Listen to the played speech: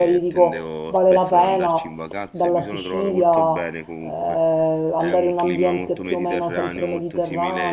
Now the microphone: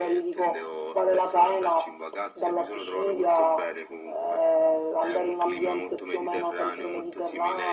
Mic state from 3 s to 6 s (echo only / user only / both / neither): echo only